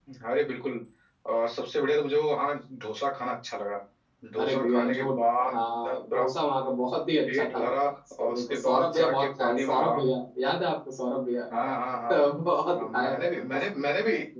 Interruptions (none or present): present